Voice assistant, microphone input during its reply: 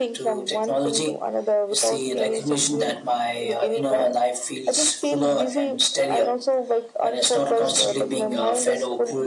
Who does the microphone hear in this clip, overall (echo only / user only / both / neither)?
echo only